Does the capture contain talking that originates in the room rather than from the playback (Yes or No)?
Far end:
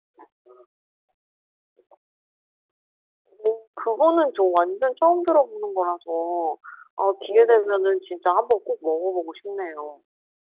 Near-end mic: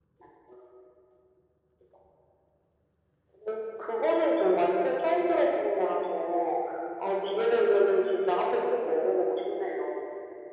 No